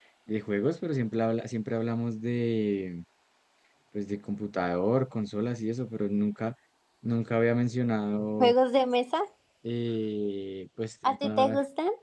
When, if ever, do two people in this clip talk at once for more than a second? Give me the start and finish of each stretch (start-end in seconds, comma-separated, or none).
none